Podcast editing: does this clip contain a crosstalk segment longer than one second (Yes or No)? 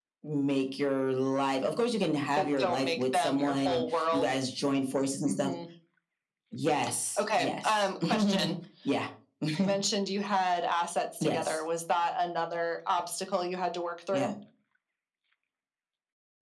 Yes